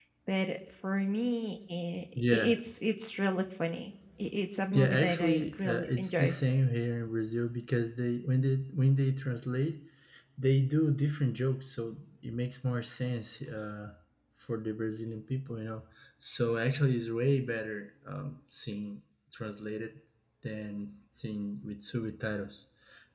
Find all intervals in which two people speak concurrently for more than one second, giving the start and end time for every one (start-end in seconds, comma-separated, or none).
4.7-6.3